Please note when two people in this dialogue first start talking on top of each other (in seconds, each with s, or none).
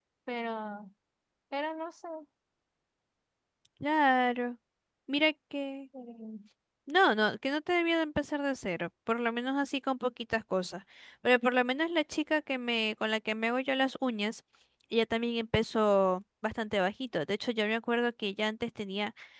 none